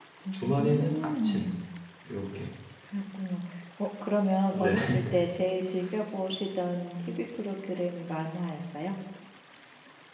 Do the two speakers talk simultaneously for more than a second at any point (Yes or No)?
Yes